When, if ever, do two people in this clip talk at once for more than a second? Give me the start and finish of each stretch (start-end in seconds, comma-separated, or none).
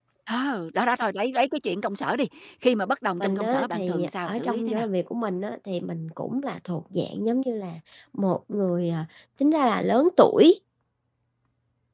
3.2-4.8